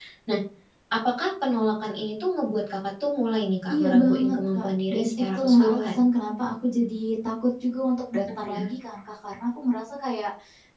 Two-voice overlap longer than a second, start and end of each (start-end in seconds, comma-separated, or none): 3.7-6.0